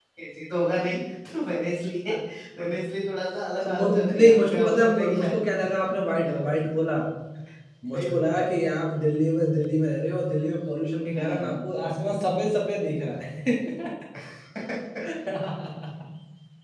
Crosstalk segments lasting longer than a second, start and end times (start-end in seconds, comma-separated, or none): 3.7-5.3